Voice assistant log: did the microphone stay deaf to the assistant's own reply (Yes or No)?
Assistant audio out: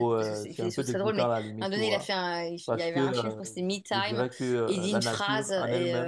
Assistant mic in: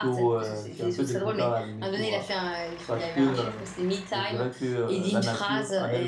No